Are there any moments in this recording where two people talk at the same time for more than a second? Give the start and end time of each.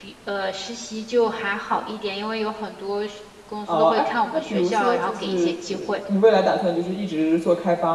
3.7-6.0

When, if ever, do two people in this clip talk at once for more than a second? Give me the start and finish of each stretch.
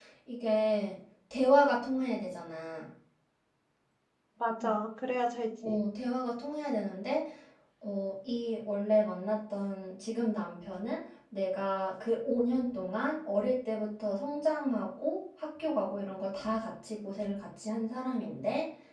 none

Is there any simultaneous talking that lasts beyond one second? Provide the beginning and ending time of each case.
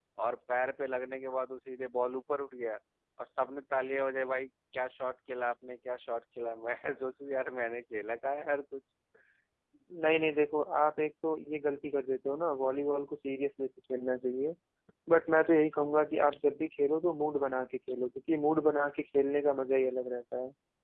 none

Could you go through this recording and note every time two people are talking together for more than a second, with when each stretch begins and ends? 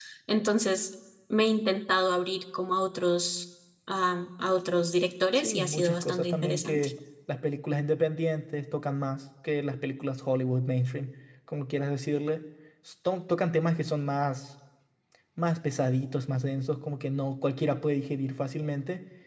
5.3-6.9

